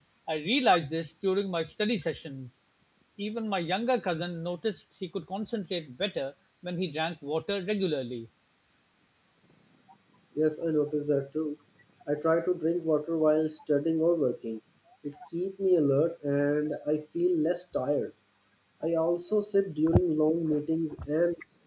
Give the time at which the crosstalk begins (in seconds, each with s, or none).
none